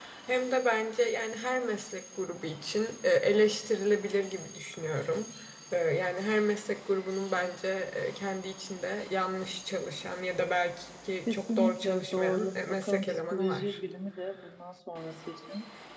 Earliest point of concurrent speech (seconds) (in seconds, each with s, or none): 11.3 s